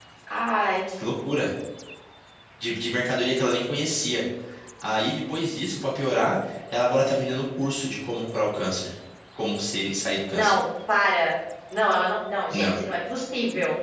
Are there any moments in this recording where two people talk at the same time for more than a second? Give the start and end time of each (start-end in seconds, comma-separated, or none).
none